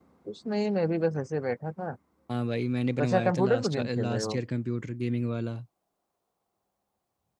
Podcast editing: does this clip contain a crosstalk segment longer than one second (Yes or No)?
Yes